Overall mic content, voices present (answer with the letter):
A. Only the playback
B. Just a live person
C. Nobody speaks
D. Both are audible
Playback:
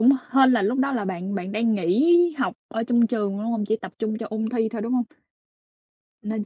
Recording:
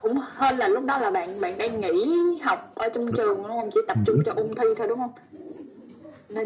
D